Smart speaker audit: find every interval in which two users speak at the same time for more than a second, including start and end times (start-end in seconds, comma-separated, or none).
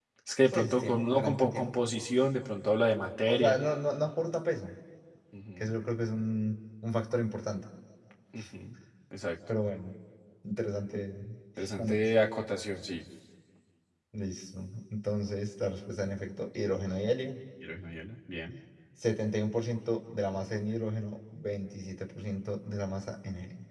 0.5-1.9